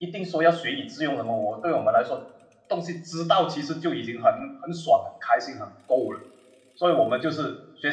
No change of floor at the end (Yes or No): Yes